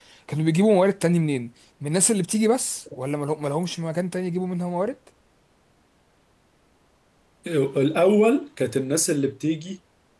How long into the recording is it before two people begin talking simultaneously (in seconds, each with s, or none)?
none